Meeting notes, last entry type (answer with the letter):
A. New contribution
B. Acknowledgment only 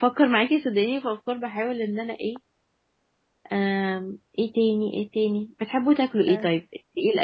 B